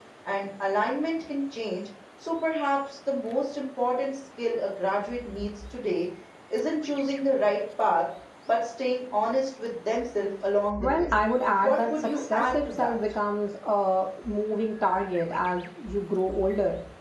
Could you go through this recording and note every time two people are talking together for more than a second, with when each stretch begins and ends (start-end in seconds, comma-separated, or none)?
11.6-12.9